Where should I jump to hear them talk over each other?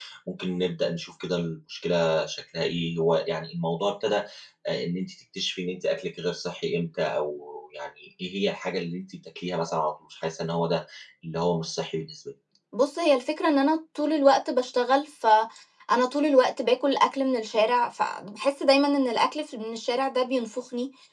none

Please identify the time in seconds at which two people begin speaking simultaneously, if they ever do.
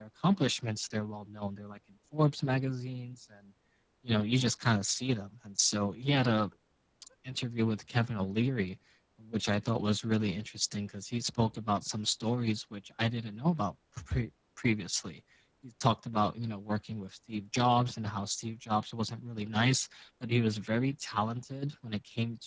none

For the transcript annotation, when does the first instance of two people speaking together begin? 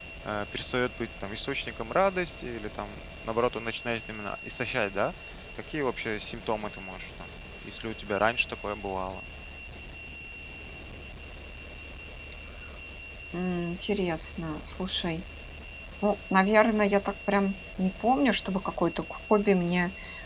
none

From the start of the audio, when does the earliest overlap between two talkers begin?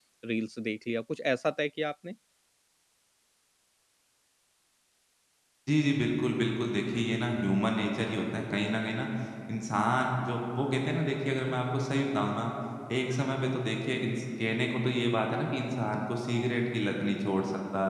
none

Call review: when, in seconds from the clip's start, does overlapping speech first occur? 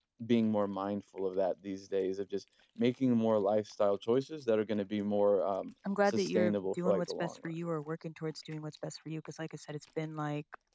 5.8 s

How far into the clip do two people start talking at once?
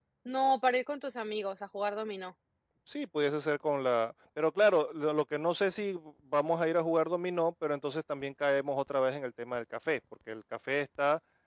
none

